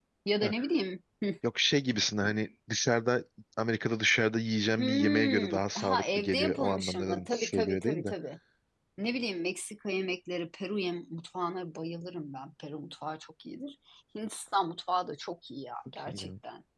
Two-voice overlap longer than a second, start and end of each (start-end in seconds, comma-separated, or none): 4.8-8.1